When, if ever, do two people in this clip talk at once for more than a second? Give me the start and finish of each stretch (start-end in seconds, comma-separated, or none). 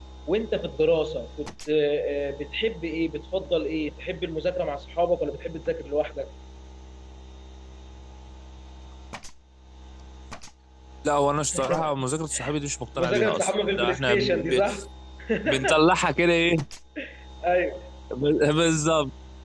13.0-14.6